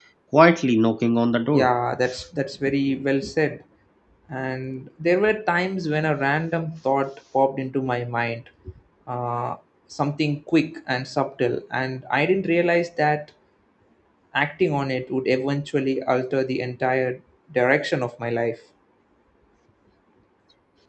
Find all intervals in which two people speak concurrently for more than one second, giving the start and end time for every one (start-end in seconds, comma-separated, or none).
none